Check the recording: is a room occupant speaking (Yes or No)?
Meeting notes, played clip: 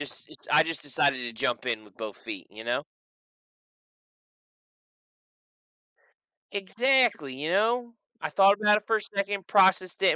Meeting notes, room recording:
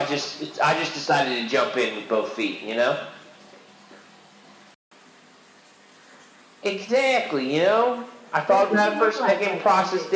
Yes